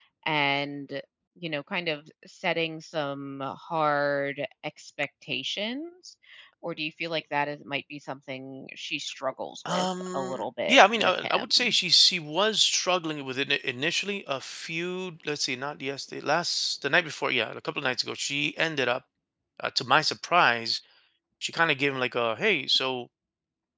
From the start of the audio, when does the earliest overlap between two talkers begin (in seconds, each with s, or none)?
9.6 s